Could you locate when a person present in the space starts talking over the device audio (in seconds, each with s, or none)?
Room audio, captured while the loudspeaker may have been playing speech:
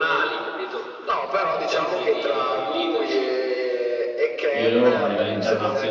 4.5 s